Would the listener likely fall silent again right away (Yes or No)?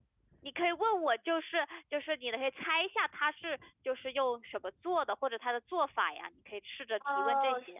No